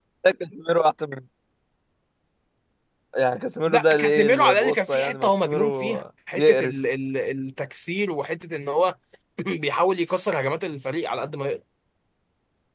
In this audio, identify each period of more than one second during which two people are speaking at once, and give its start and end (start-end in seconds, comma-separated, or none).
3.7-6.0